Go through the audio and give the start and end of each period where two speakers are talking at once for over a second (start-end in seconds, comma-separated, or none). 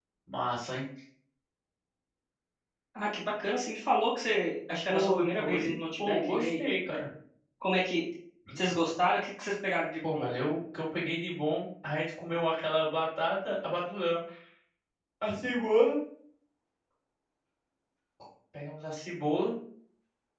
4.9-6.6